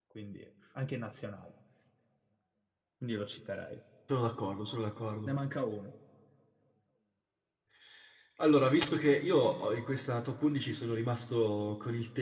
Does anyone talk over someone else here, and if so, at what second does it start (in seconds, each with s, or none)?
none